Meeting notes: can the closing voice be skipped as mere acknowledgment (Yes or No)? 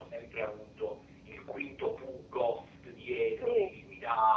Yes